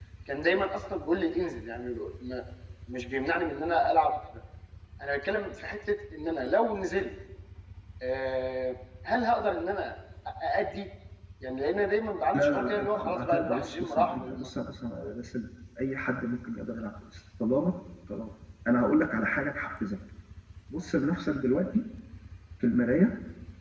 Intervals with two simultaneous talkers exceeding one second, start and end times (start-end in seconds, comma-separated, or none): 12.3-14.5